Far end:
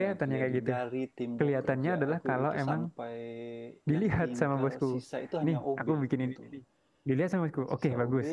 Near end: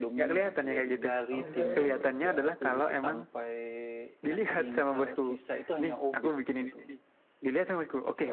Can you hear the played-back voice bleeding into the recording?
Yes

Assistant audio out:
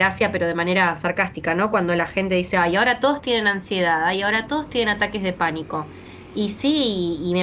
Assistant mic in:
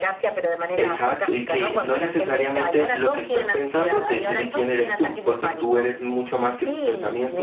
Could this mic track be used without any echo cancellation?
No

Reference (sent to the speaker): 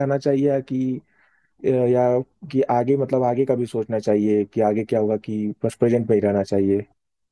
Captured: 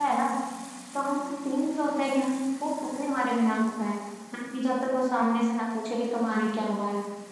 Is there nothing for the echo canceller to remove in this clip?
Yes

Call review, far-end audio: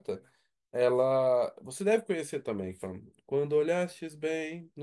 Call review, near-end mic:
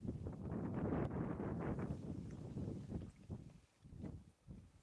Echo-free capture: Yes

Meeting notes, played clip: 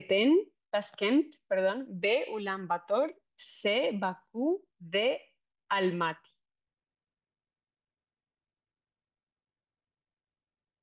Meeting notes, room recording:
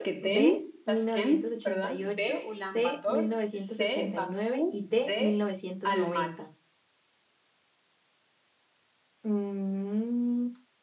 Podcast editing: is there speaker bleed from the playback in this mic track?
Yes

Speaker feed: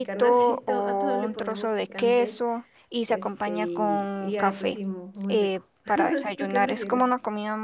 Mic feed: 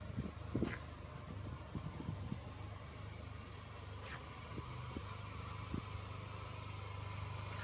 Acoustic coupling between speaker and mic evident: No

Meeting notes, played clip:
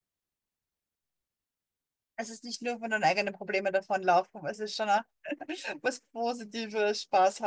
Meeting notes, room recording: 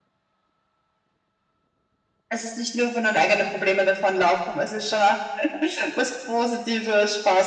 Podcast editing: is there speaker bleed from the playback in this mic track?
Yes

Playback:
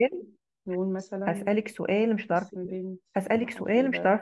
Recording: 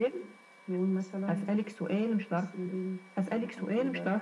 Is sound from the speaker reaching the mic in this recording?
Yes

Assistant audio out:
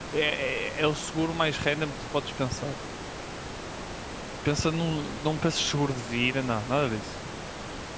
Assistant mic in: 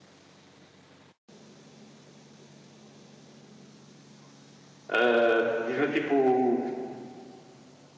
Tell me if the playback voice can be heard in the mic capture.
No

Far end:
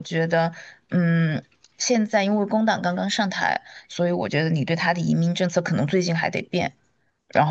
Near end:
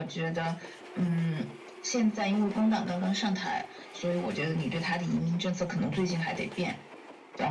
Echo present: Yes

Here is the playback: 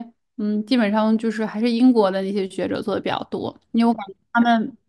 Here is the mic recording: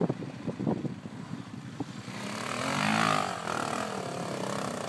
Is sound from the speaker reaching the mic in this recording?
No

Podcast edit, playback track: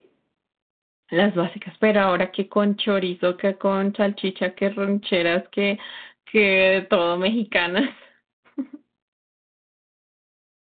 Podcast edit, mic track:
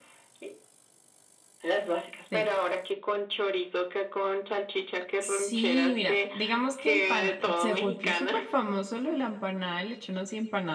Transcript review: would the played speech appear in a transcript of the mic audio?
Yes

